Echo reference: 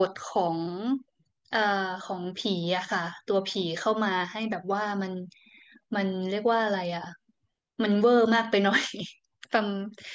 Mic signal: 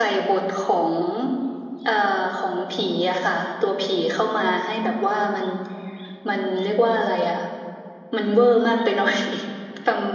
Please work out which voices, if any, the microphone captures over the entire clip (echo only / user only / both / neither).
echo only